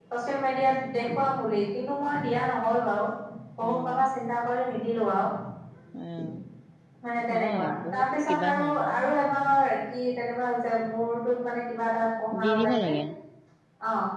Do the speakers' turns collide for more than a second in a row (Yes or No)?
Yes